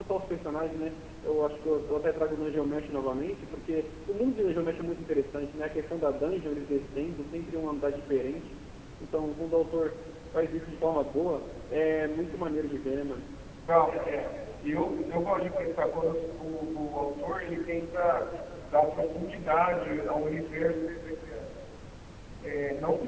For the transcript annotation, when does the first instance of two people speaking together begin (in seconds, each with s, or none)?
none